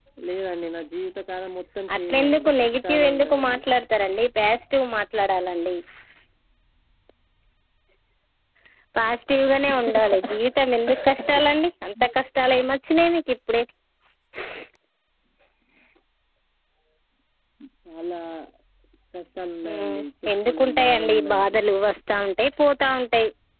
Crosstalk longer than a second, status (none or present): present